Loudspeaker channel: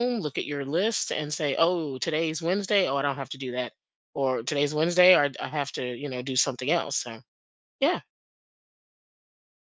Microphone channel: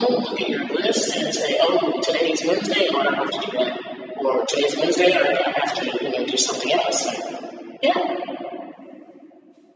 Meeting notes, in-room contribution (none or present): none